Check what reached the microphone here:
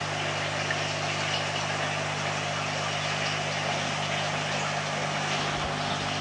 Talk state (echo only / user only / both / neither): neither